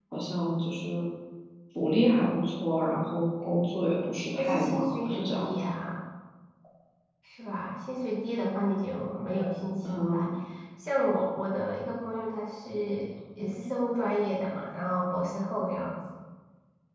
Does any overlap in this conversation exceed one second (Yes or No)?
Yes